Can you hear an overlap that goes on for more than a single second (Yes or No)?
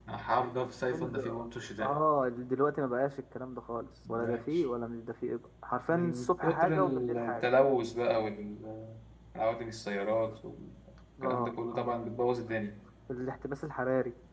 Yes